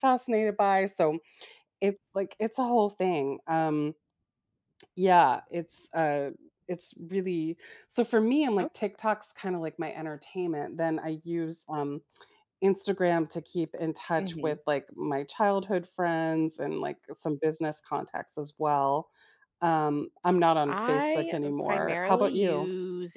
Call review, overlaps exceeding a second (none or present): present